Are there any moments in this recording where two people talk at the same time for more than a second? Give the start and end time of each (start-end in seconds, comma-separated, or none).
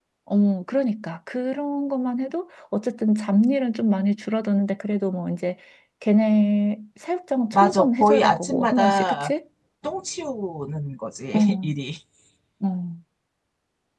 7.5-9.3